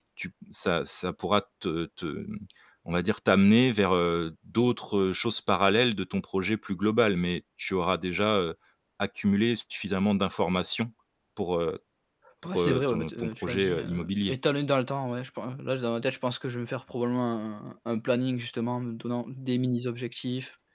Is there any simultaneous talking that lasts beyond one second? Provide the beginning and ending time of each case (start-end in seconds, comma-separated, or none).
12.4-14.3